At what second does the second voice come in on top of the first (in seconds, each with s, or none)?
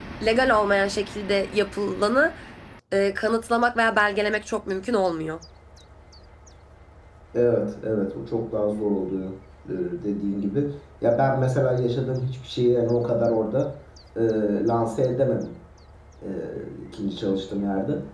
none